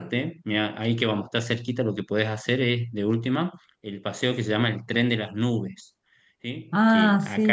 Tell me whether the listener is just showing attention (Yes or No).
Yes